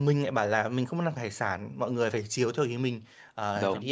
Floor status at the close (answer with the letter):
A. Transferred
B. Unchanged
B